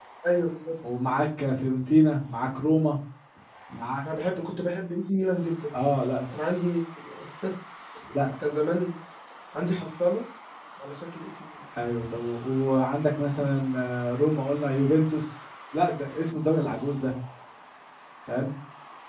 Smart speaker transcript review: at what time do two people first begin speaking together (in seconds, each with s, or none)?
none